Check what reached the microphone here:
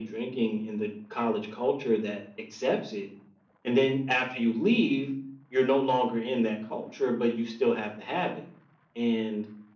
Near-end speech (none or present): none